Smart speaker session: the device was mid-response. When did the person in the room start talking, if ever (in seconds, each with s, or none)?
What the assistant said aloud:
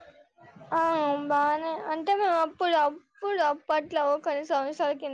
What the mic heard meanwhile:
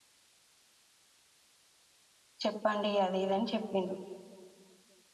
2.4 s